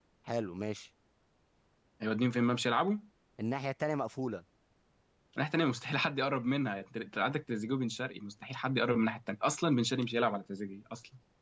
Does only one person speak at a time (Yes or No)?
Yes